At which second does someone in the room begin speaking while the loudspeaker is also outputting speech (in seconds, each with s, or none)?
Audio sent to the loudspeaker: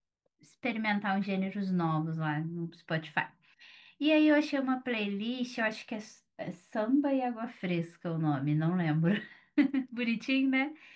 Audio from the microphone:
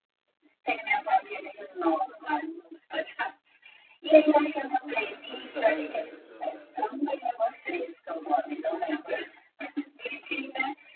4.8 s